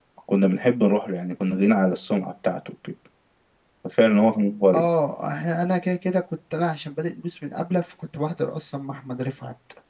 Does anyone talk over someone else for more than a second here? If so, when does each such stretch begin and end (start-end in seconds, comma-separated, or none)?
none